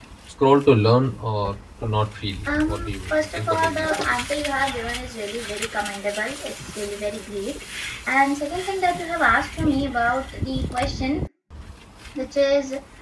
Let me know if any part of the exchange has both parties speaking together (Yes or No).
Yes